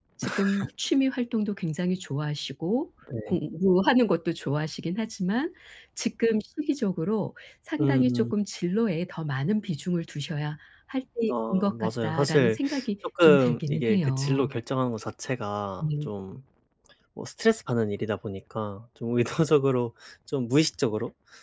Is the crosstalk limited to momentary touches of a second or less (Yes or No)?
No